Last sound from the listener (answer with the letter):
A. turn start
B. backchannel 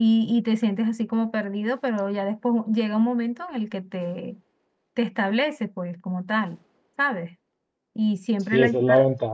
A